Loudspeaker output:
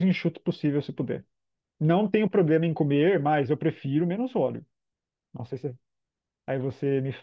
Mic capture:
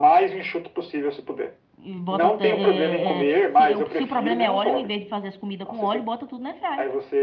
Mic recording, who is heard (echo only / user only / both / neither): both